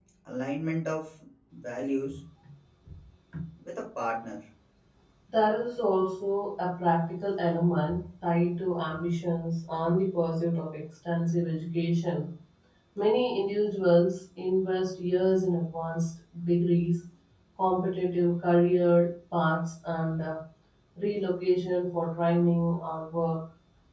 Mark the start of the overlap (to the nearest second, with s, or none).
none